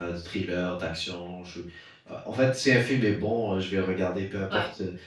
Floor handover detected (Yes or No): No